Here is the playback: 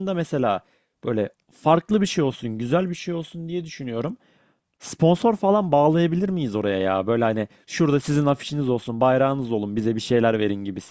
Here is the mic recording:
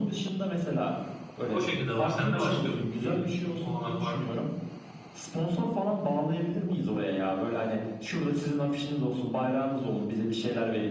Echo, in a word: present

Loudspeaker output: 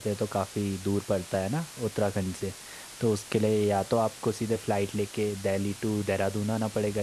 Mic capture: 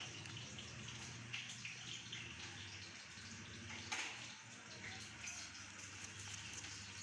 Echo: none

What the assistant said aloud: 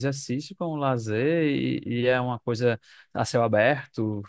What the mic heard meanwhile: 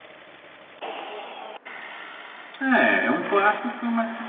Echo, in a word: none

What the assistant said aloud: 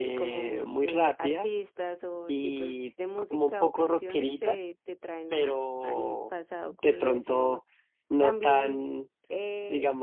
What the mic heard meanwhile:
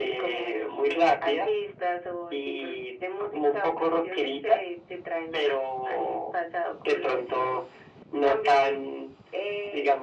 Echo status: present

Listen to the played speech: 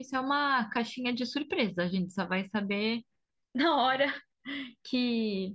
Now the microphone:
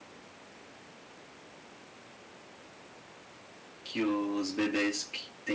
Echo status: none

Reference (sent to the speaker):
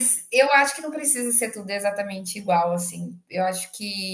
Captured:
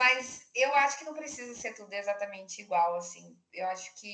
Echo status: present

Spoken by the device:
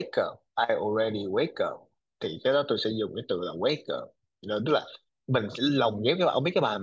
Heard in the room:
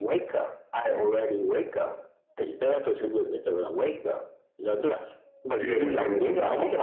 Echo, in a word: present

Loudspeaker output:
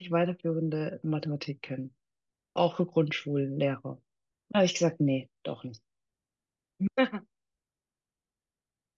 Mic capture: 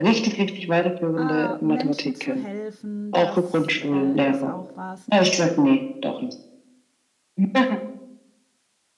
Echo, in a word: present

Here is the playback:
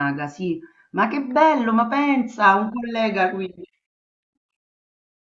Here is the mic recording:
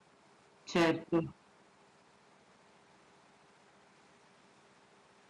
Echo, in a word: none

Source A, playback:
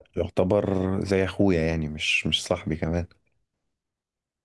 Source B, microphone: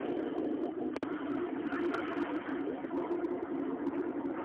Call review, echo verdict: none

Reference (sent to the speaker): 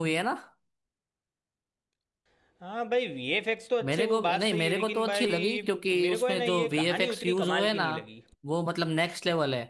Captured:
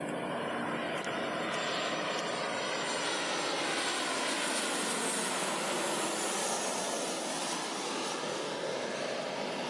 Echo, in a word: none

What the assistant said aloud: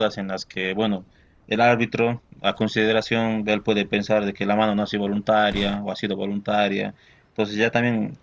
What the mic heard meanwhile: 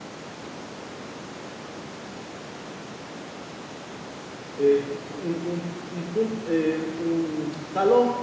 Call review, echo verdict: none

